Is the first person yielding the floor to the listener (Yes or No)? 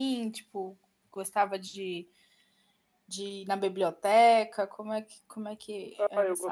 Yes